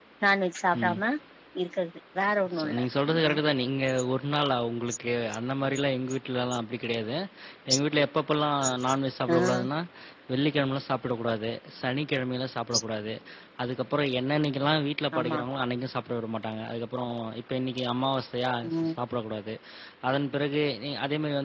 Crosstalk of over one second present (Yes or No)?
No